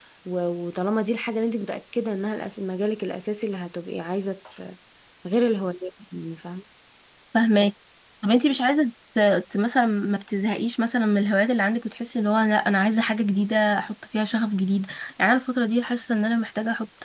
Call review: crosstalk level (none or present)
none